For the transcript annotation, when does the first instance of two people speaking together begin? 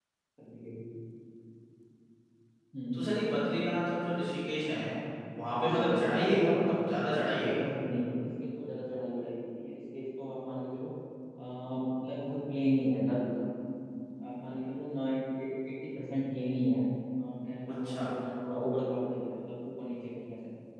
6 s

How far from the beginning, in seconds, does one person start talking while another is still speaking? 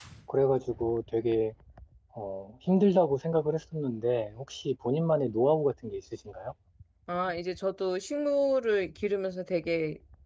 none

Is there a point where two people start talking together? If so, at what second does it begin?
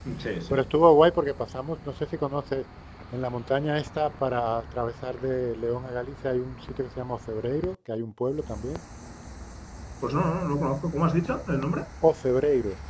none

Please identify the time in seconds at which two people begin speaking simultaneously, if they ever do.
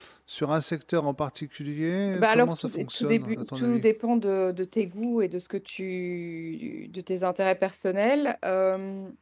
2 s

